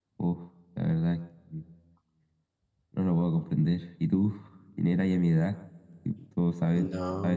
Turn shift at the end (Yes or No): Yes